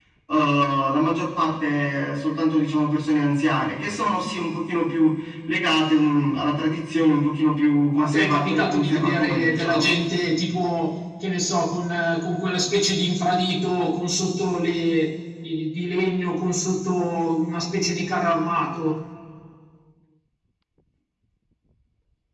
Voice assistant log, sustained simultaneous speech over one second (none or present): present